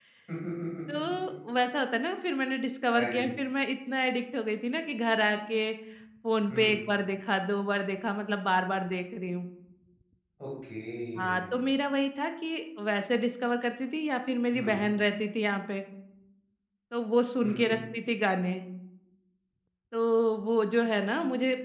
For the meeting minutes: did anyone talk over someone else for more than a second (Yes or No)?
No